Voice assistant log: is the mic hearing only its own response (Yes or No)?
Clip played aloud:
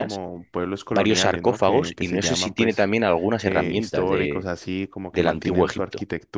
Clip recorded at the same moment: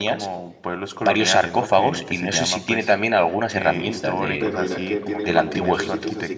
No